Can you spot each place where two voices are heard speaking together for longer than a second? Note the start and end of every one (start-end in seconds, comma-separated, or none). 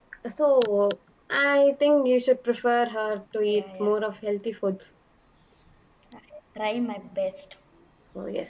none